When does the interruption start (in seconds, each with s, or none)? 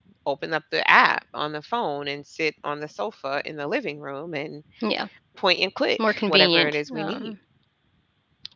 6.1 s